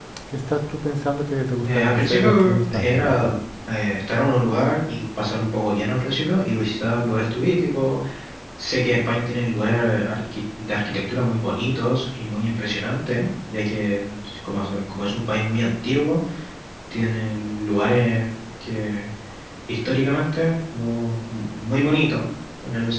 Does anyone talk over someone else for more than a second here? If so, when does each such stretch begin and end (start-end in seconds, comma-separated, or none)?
1.6-3.4